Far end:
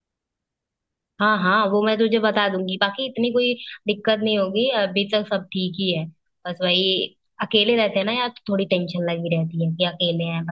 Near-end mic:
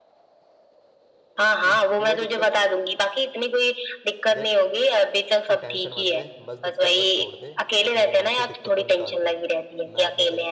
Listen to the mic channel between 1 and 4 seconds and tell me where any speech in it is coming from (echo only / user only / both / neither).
both